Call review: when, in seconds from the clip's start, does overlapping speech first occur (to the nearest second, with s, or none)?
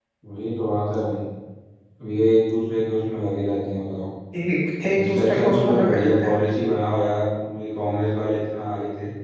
5 s